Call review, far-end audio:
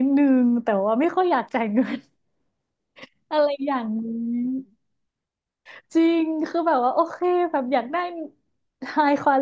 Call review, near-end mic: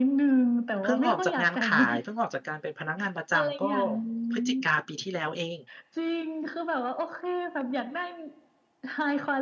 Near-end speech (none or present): present